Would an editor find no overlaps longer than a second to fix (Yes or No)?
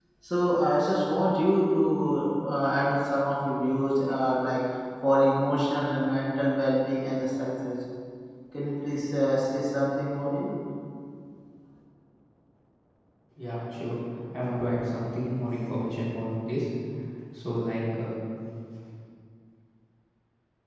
Yes